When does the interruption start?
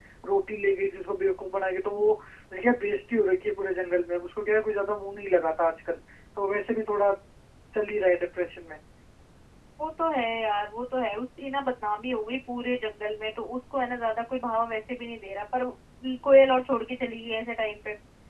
none

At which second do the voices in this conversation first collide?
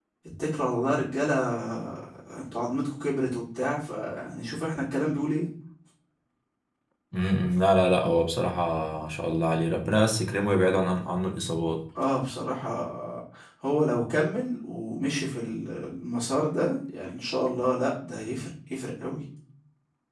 none

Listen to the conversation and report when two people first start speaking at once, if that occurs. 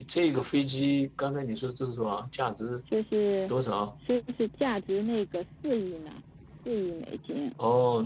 none

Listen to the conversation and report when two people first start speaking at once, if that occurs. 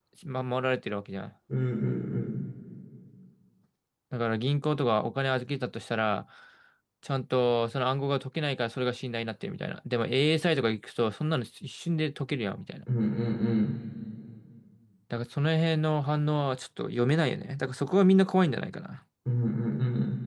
none

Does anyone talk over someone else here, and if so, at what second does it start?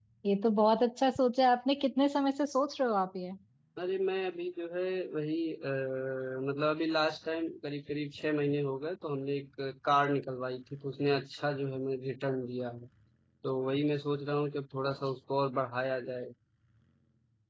none

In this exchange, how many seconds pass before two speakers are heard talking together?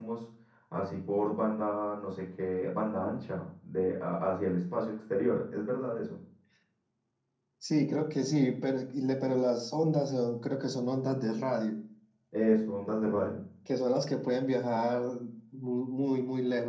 none

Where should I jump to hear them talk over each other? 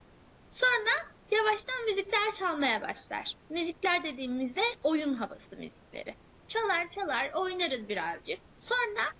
none

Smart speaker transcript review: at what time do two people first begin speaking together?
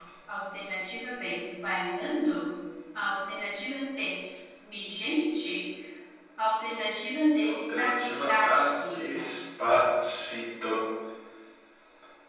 7.4 s

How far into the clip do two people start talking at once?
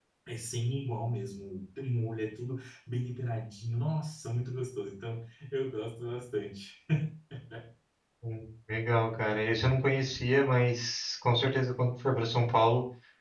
none

